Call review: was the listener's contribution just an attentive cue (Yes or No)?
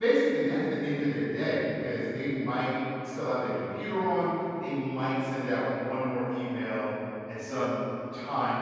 Yes